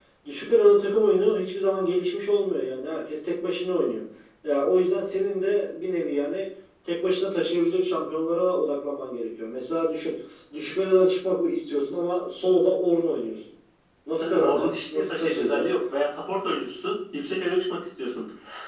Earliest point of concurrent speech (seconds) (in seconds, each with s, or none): 14.1 s